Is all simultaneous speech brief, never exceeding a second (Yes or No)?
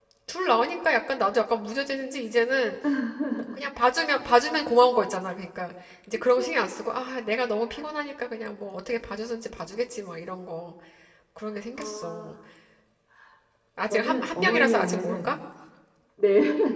No